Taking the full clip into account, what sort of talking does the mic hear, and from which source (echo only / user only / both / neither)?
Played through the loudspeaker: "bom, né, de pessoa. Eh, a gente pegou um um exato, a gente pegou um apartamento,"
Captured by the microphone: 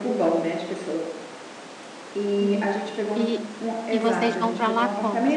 both